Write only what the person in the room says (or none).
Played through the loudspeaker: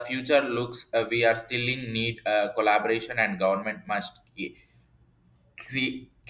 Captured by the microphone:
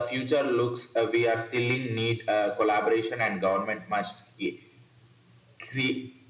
none